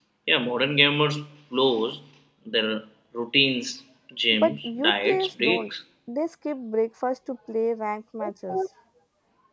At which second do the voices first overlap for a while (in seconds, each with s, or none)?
4.3 s